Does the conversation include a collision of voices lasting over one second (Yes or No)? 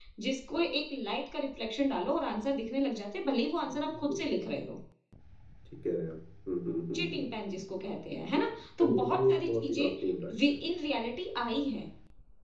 Yes